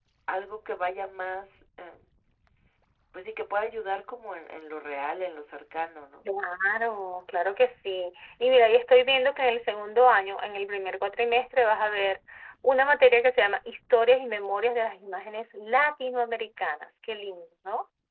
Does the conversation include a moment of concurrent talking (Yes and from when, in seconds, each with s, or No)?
No